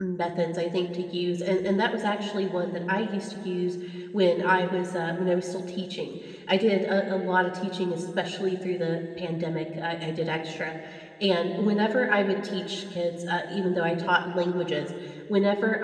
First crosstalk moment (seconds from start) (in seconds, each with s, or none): none